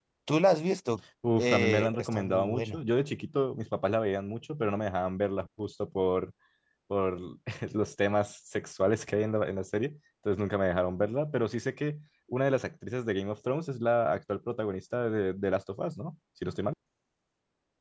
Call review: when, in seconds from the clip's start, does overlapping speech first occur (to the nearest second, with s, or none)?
1 s